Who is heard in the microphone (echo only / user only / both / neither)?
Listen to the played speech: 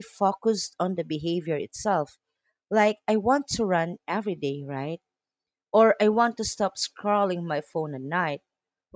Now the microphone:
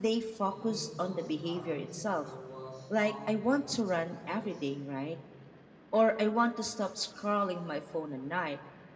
both